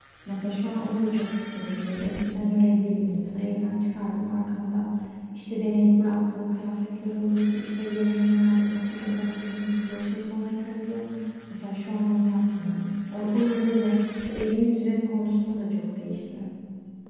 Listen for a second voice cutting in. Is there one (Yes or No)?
No